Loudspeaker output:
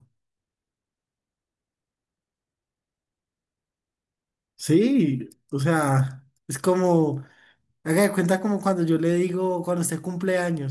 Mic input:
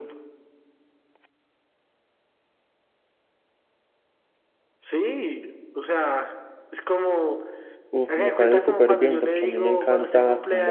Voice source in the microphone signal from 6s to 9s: both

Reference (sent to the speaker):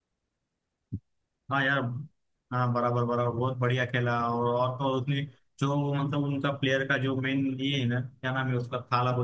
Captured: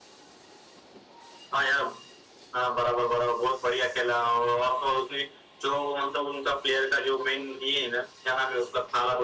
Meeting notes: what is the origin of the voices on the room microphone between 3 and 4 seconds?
echo only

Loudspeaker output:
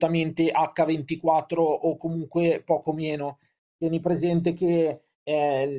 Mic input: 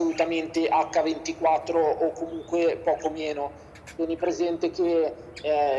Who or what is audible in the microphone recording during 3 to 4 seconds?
echo only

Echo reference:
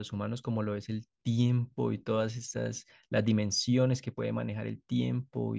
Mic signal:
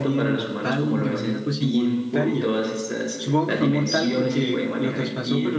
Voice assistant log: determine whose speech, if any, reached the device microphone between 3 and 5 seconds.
both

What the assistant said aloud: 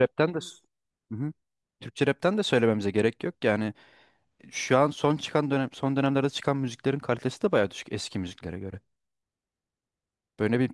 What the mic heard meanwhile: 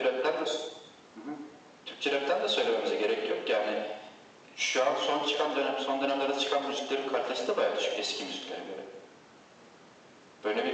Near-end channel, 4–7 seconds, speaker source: echo only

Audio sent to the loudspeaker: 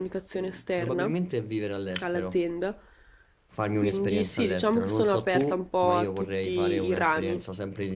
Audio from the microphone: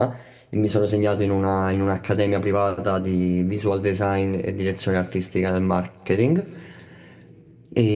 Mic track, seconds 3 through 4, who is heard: user only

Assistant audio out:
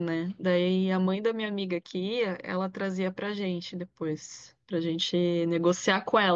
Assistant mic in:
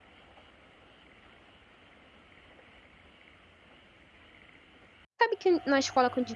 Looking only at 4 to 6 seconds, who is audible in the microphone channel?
user only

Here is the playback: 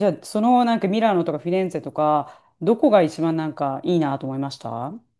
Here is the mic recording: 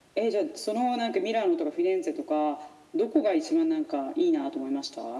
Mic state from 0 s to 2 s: echo only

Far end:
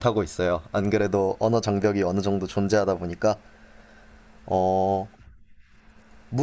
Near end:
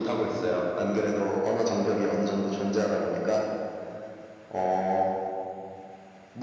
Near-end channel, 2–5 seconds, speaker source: echo only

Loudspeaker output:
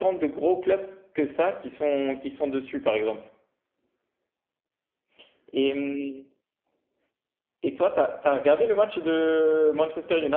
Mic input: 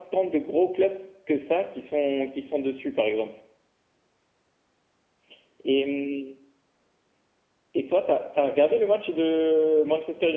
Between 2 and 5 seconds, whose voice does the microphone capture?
echo only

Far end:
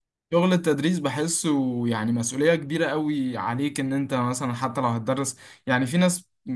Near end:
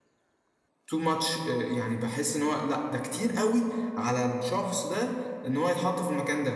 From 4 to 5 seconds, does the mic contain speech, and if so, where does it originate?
user only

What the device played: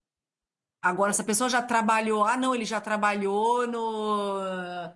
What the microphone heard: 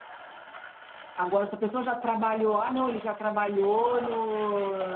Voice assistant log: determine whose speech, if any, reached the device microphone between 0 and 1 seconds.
neither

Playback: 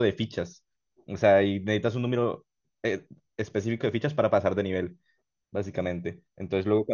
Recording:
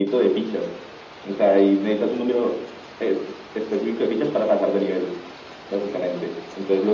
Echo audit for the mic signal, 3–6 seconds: echo only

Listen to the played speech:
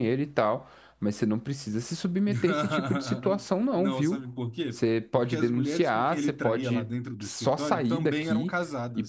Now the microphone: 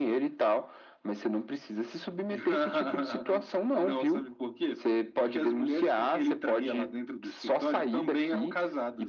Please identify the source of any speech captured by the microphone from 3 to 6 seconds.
echo only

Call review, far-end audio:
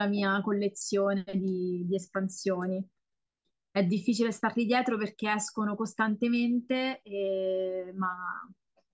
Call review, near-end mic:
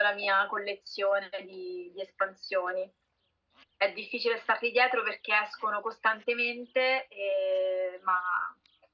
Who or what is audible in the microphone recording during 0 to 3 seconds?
echo only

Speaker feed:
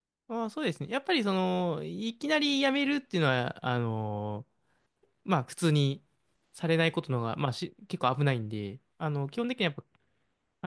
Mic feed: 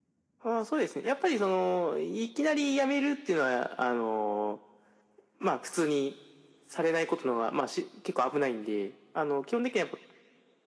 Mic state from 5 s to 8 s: echo only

